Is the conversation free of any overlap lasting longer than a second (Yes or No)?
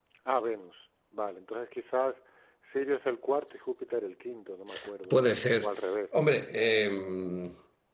Yes